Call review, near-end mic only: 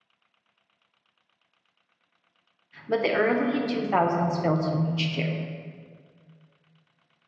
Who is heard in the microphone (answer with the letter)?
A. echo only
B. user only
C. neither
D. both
B